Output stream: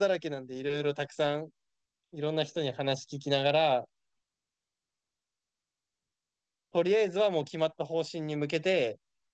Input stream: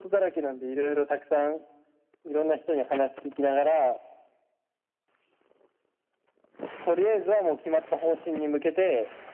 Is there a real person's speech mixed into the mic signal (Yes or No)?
No